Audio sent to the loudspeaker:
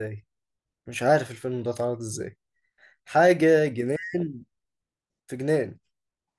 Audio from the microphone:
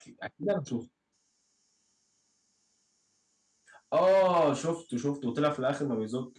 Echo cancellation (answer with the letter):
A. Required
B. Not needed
B